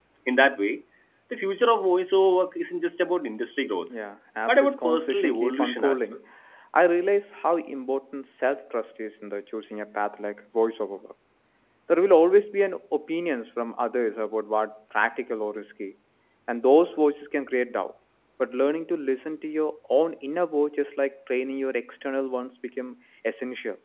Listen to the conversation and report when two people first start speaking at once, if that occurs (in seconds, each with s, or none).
4.5 s